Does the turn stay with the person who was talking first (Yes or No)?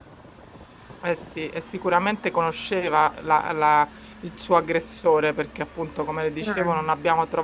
Yes